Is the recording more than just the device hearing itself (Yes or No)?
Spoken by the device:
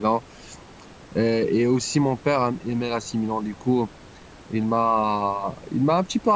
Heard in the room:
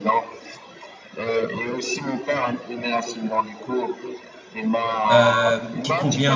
Yes